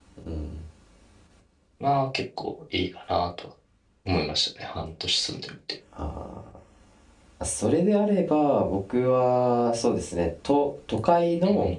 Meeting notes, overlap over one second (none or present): none